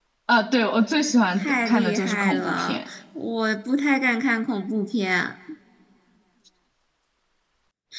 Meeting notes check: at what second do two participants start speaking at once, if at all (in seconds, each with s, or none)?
1.4 s